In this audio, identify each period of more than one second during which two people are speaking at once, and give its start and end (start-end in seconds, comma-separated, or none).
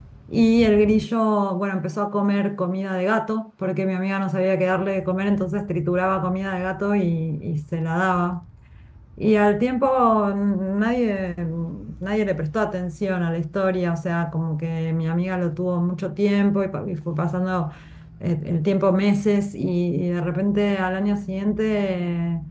none